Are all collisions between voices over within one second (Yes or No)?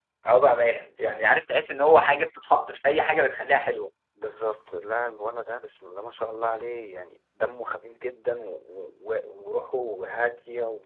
Yes